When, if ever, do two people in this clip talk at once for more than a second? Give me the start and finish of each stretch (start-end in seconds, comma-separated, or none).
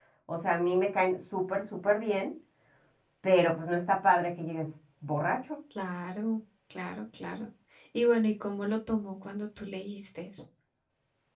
none